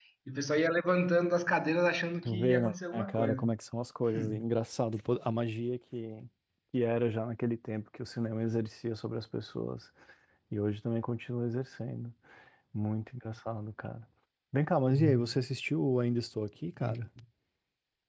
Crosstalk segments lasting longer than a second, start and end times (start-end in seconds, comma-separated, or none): 2.2-3.5